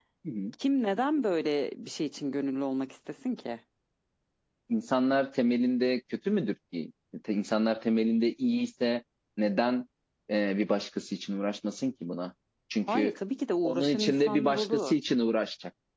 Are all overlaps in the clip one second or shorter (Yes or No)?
No